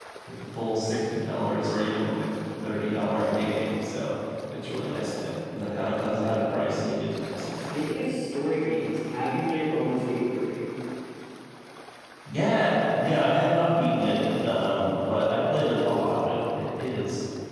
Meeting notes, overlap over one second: none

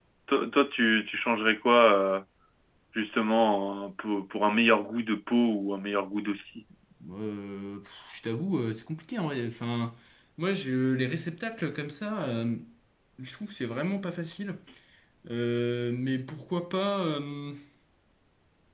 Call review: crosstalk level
none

